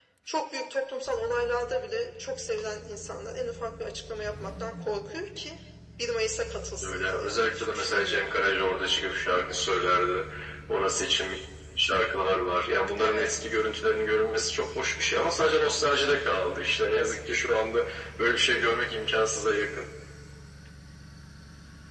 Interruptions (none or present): present